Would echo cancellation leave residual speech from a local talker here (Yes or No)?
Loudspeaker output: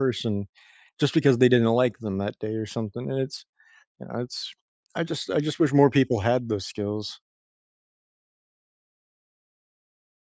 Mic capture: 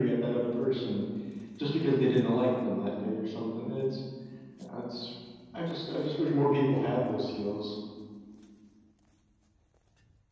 No